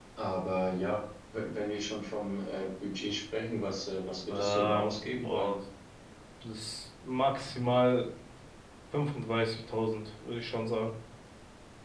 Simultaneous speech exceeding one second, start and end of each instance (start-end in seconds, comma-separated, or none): 4.3-5.5